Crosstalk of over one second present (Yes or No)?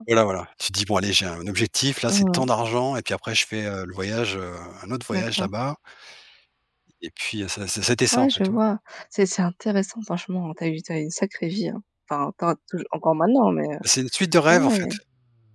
No